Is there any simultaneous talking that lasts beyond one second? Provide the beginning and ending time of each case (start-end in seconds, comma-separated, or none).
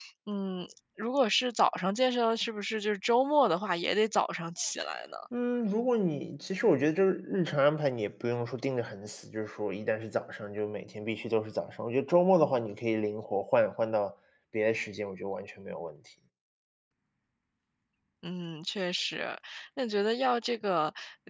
none